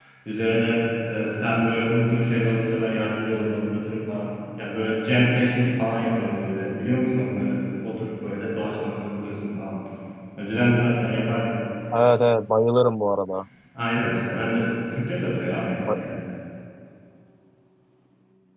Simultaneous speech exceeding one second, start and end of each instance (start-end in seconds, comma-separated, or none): none